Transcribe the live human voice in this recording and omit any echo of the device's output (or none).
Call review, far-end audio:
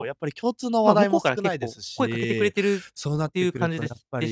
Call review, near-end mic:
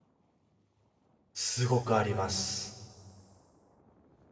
すごくあります。